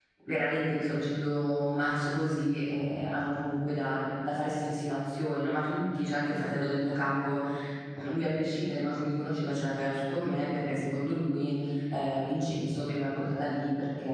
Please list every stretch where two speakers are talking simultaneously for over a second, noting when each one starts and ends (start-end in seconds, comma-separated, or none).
none